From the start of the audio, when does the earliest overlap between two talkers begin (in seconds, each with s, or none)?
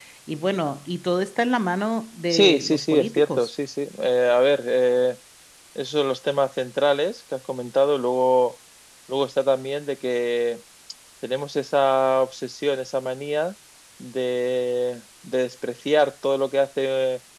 2.3 s